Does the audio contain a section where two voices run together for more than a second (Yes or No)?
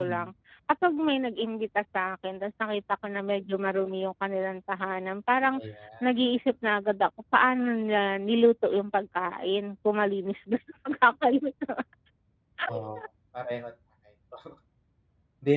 No